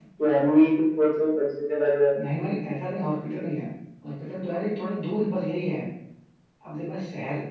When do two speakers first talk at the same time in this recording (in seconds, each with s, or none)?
none